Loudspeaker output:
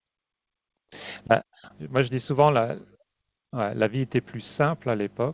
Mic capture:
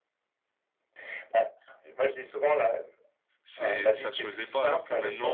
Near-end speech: present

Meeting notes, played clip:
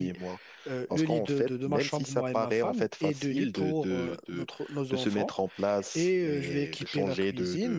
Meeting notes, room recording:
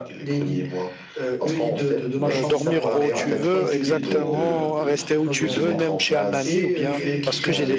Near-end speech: present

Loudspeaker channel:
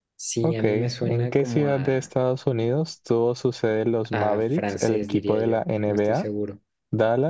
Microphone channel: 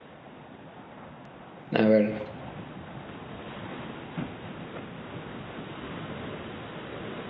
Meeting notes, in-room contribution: present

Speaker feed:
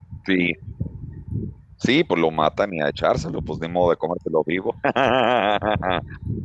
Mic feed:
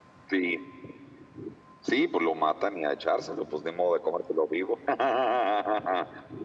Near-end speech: none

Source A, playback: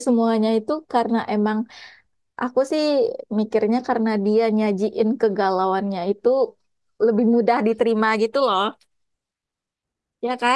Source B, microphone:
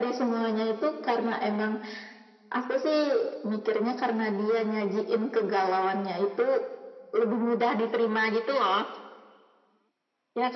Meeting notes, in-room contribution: none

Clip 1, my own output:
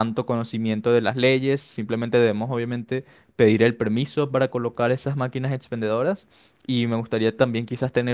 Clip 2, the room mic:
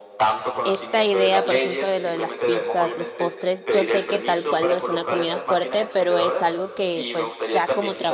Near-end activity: present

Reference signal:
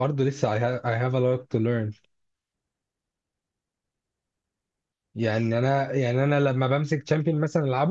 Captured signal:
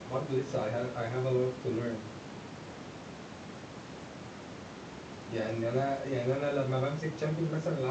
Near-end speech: none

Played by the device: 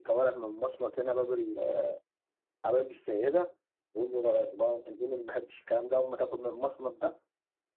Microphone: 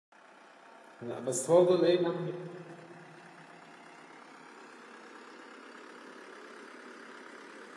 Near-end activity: present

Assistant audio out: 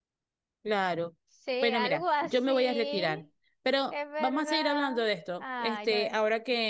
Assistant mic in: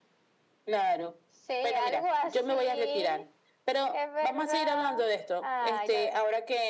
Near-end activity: none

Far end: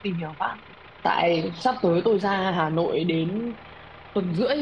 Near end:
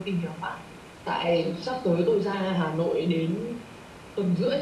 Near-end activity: none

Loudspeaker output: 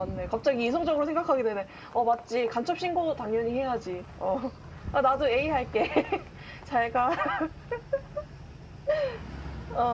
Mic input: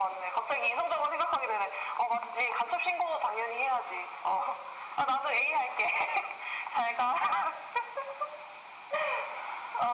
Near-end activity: none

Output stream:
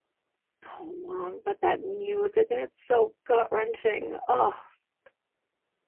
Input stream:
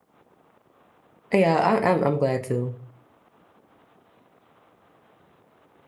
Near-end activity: present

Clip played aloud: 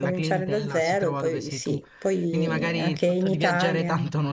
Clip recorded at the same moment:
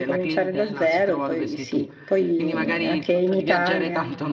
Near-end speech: none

